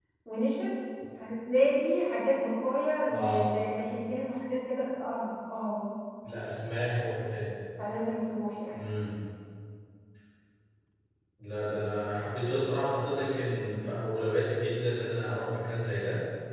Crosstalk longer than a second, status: none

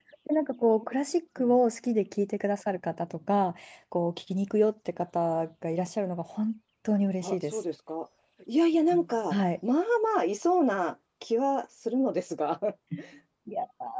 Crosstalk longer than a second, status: none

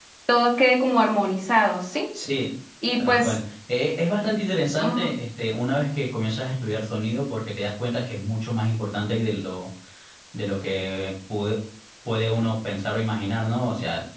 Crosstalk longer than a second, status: none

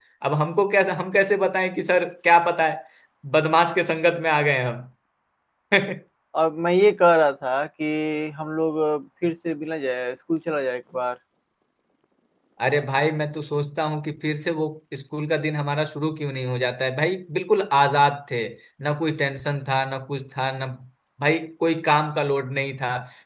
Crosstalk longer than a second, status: none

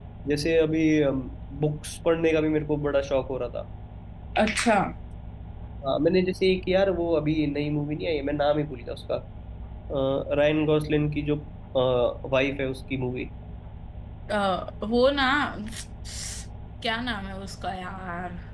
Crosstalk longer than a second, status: none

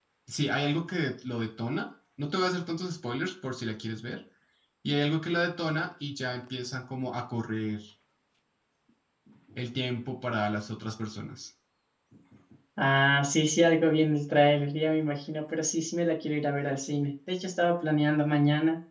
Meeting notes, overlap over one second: none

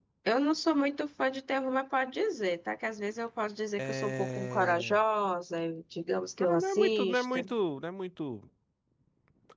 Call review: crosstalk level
present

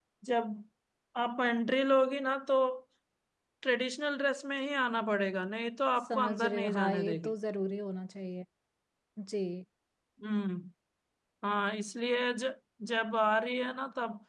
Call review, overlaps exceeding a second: present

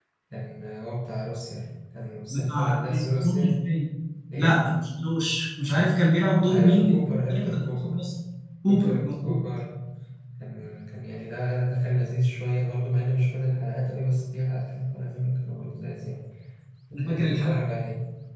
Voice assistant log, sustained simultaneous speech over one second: present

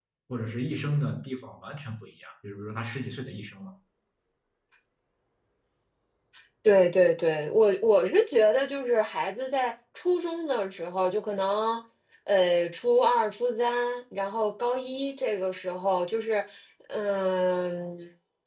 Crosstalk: none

